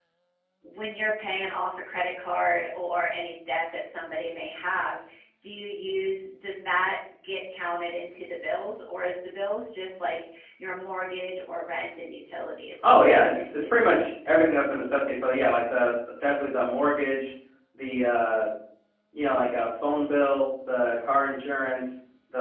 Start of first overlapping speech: 13 s

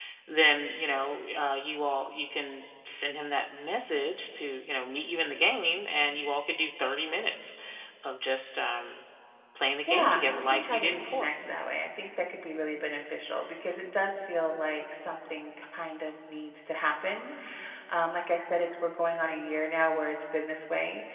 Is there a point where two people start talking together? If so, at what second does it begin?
10 s

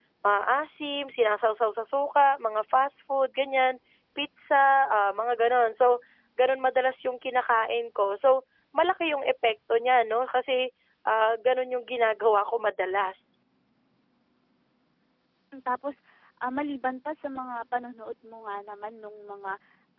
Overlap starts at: none

